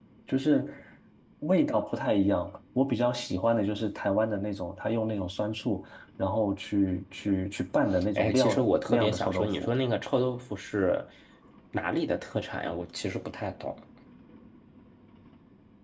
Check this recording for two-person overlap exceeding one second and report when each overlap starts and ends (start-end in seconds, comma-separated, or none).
8.2-9.7